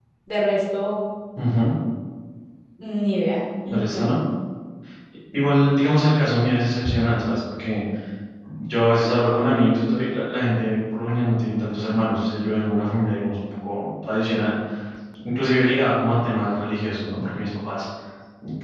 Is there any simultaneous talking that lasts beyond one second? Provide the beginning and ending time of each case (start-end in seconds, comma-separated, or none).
none